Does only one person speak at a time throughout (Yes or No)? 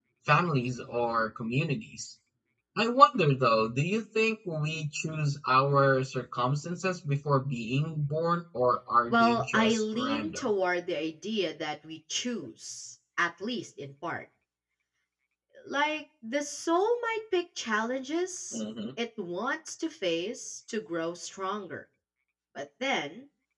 No